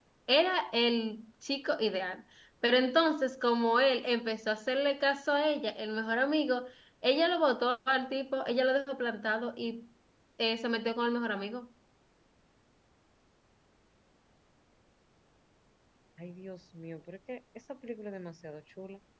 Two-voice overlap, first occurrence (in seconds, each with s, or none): none